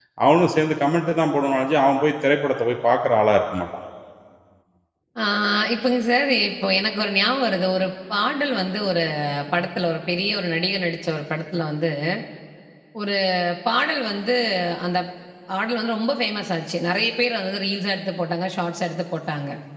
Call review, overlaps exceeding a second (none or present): none